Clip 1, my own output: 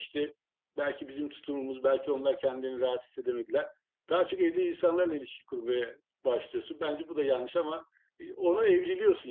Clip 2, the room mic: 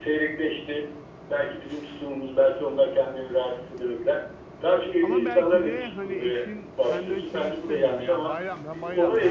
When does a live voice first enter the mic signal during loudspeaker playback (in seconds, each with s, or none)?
5.0 s